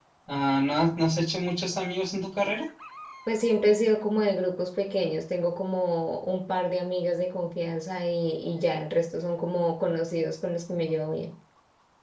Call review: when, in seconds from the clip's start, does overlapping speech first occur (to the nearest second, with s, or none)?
none